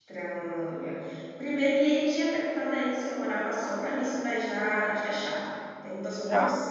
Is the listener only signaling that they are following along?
Yes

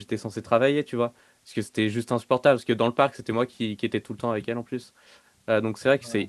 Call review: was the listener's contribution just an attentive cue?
Yes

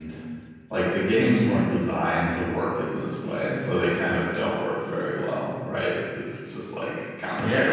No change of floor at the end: No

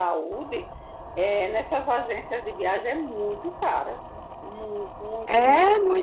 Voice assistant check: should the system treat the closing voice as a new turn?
Yes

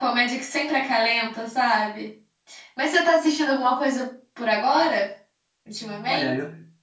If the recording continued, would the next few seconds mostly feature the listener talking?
Yes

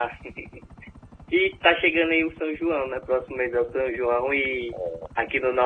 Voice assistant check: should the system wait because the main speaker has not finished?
Yes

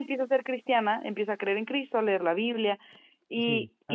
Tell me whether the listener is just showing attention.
No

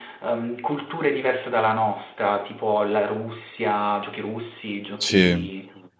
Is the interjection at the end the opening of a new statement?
No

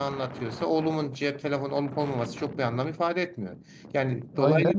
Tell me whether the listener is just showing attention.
No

